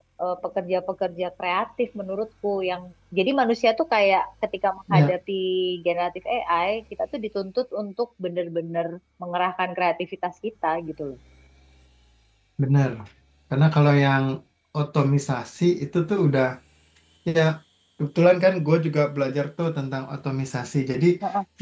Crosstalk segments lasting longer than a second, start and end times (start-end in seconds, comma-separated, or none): none